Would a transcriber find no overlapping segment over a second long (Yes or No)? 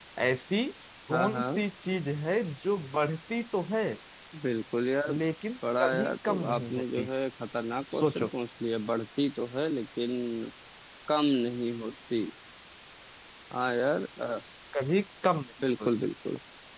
No